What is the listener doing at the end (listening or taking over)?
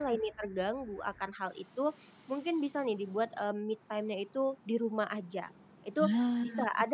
listening